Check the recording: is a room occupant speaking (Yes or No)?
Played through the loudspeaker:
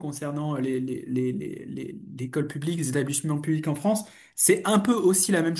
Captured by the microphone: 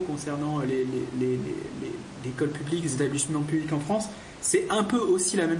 No